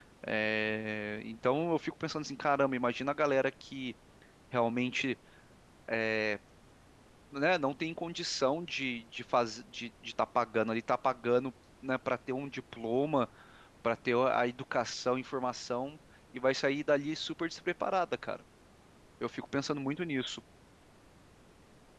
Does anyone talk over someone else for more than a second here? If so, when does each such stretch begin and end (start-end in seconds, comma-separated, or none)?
none